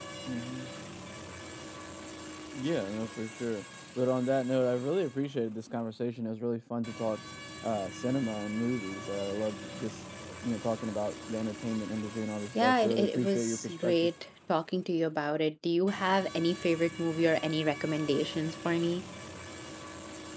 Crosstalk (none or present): present